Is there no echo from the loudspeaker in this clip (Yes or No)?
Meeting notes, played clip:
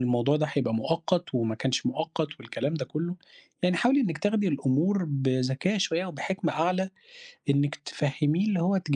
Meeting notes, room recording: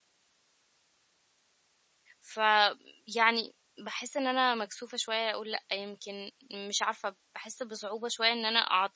Yes